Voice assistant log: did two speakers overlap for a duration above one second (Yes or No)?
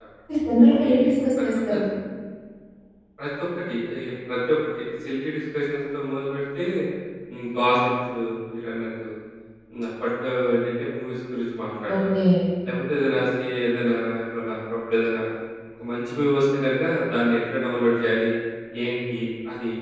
No